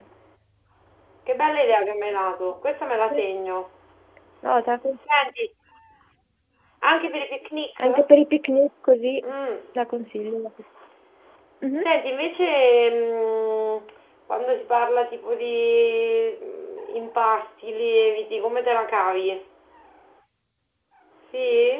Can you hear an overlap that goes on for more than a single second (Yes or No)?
No